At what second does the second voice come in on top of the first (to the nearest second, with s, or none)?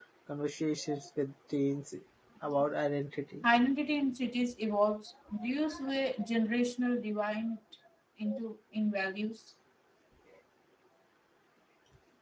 none